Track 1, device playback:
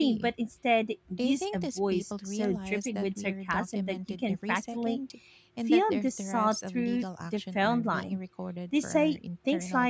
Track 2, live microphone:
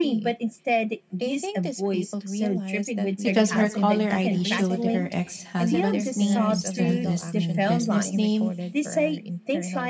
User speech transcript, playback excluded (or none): because her caller ID showed her ex husband's name instead of his new business name.